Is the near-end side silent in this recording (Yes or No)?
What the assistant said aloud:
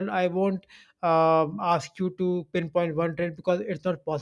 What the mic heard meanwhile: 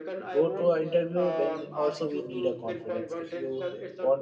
No